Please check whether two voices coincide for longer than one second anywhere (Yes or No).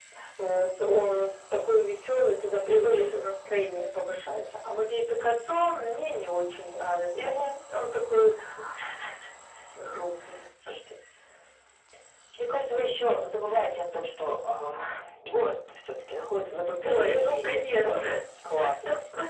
Yes